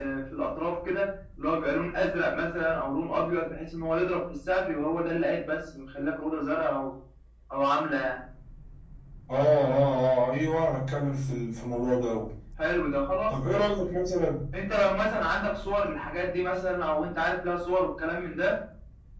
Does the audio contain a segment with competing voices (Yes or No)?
No